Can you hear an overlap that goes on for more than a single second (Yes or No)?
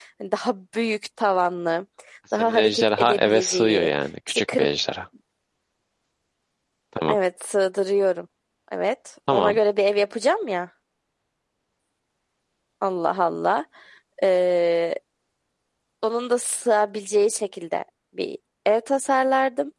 Yes